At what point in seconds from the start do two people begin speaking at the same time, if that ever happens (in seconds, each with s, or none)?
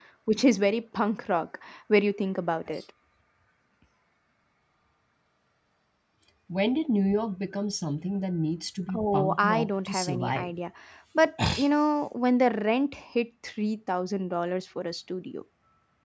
8.9 s